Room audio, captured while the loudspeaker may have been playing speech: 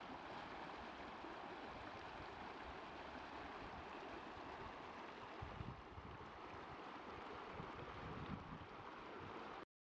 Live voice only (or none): none